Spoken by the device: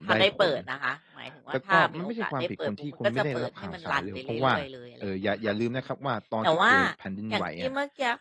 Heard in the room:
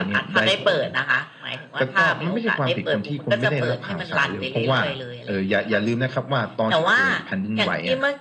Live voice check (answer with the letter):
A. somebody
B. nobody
B